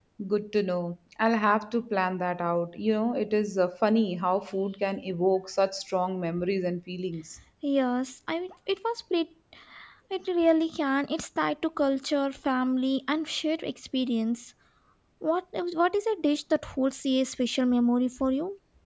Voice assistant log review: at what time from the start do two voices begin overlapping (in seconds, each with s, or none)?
none